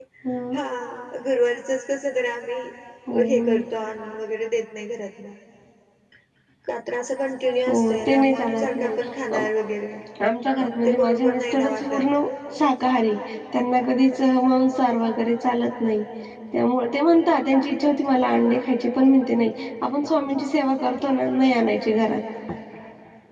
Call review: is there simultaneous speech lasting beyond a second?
Yes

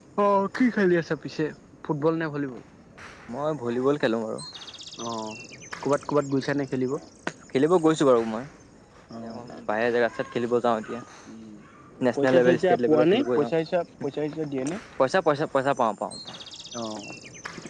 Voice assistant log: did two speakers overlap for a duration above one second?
Yes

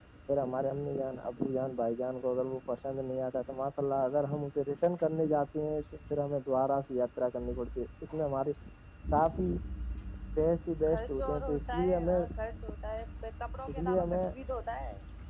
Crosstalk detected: Yes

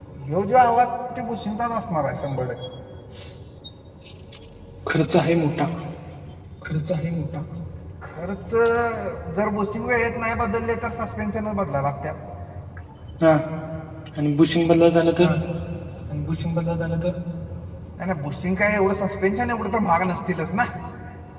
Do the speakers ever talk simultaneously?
No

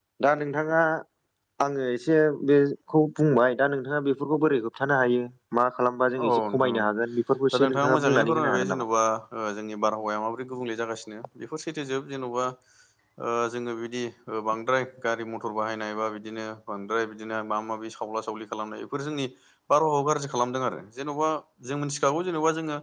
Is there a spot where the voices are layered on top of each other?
Yes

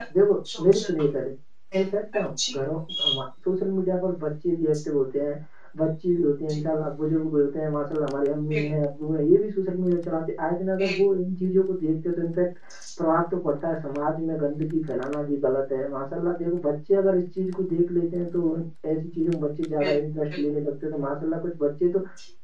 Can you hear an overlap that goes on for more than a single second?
No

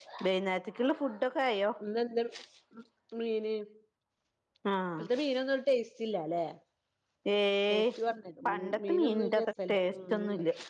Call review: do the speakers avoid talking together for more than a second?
No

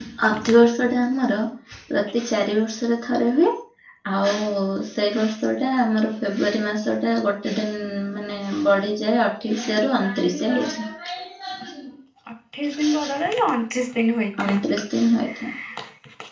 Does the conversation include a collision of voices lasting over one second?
No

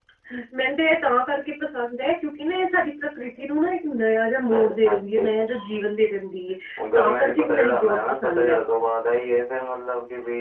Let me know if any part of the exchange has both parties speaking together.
Yes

